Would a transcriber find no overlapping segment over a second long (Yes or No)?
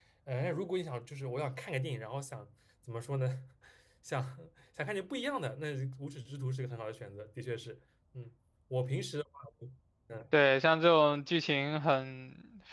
Yes